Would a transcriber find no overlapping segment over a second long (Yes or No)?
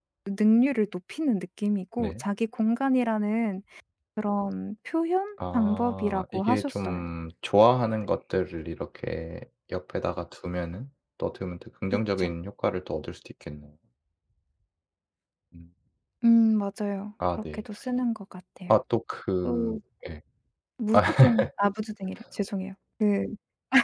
No